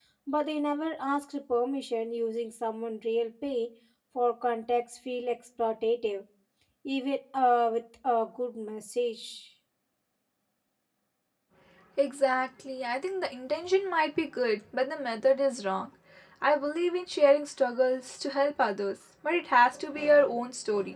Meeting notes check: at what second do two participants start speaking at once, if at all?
none

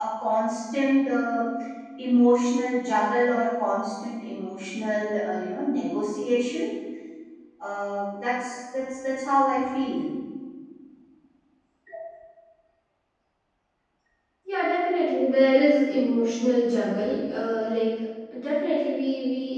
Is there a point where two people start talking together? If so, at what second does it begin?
none

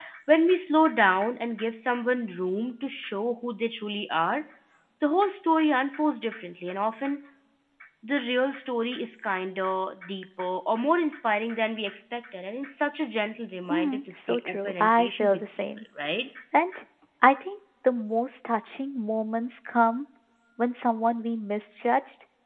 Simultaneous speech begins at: 13.7 s

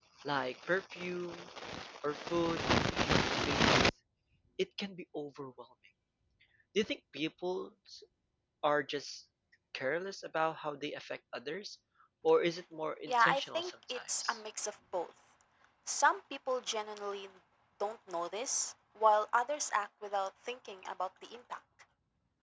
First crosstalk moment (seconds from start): 13.1 s

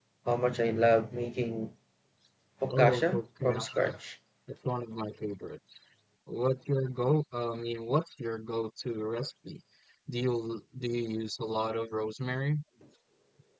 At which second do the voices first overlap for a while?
2.7 s

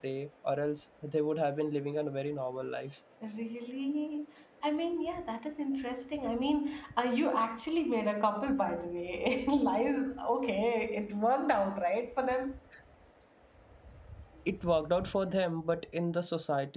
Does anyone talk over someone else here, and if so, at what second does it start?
none

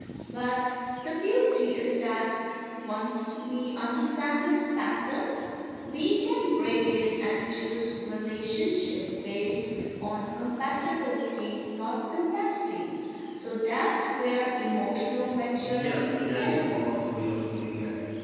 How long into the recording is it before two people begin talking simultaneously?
15.6 s

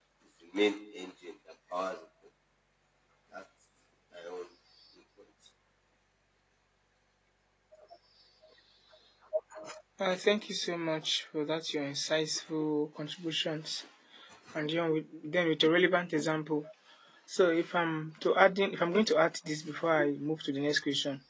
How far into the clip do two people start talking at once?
none

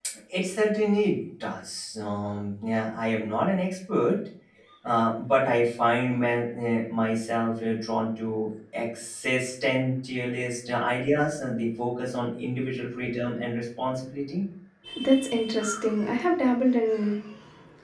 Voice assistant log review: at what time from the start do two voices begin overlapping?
none

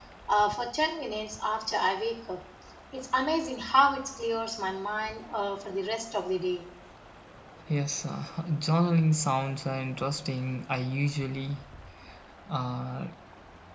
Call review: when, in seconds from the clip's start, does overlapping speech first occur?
none

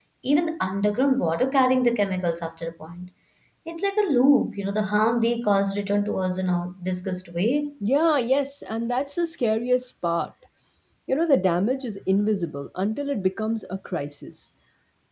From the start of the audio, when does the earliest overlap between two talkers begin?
none

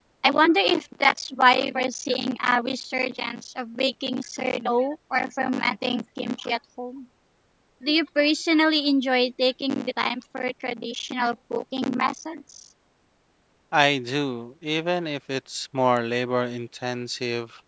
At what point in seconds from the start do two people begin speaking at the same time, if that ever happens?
none

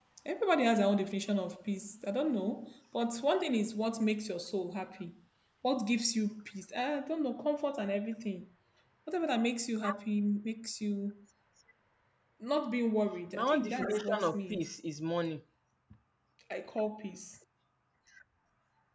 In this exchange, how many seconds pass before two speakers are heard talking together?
13.3 s

